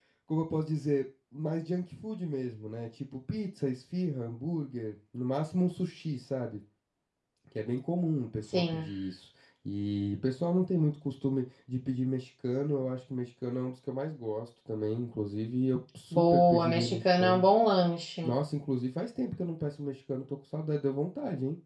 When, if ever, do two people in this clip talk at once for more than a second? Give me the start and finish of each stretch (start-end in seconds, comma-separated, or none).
16.1-17.5